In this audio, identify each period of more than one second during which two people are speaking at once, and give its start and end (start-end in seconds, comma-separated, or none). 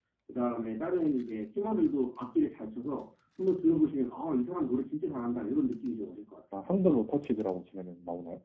none